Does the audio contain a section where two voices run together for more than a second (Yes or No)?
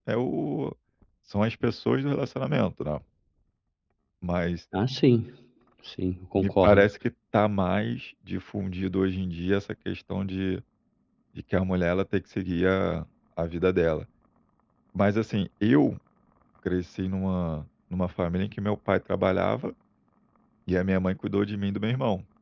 No